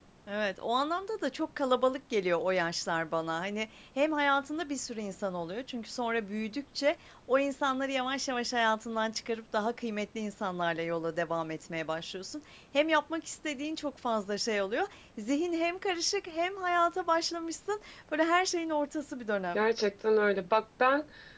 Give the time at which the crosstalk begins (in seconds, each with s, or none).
none